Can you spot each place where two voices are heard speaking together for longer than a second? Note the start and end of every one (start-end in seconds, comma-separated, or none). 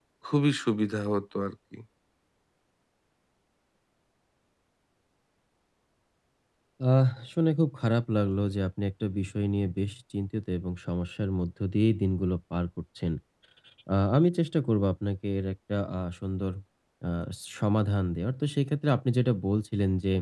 none